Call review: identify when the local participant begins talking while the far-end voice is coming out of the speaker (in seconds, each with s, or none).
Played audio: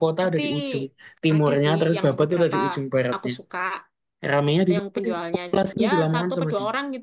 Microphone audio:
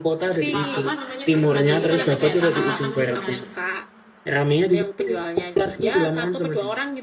0.3 s